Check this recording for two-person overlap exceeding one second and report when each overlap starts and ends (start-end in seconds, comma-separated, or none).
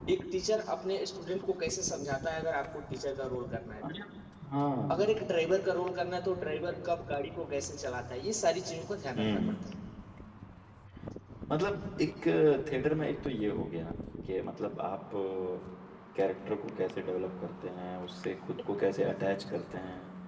none